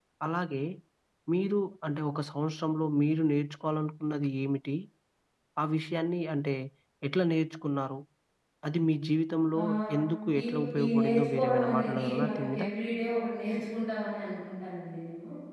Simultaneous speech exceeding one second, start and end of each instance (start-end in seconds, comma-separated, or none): 10.4-12.6